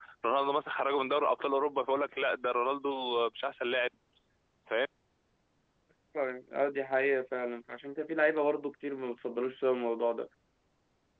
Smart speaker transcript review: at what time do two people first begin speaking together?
none

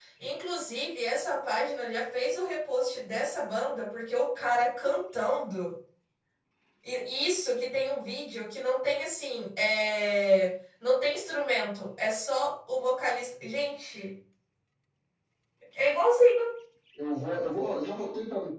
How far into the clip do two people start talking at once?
none

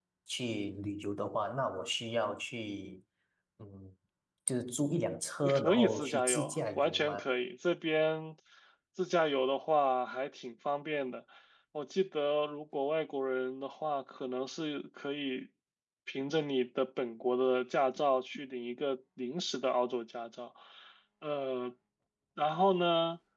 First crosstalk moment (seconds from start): 5.4 s

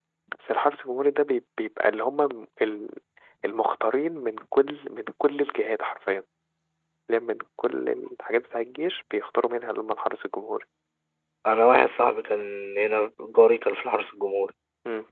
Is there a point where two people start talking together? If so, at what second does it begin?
none

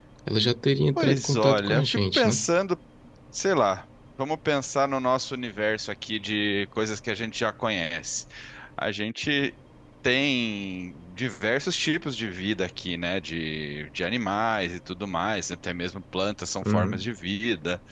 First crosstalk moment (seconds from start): 1.0 s

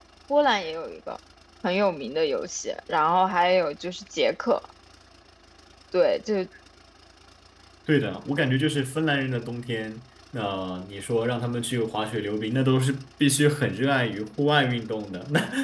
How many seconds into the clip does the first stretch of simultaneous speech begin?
none

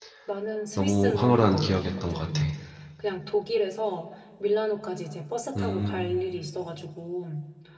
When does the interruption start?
0.8 s

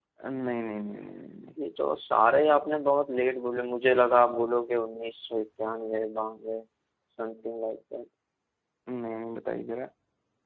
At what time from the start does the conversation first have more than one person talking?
none

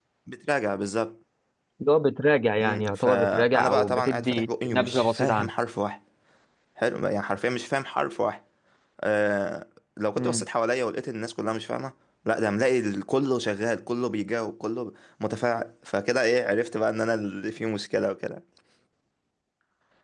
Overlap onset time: 2.6 s

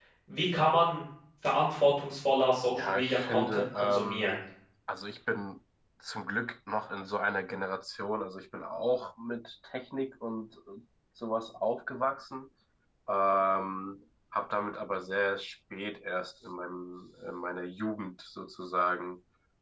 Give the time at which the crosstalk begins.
2.8 s

